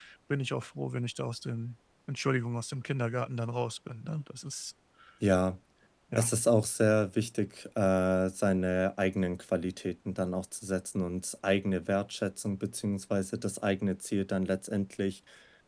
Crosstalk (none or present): none